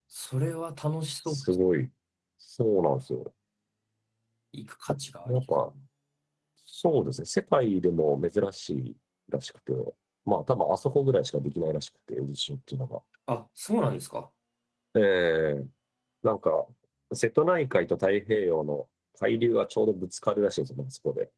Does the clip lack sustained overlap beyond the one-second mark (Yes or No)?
Yes